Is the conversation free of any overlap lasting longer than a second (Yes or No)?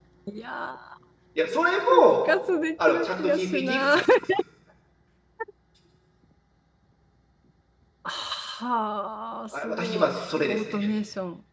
No